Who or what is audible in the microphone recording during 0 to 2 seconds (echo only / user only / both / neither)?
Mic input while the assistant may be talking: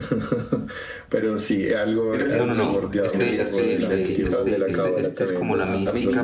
echo only